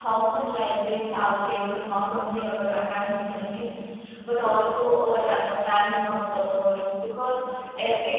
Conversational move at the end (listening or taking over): listening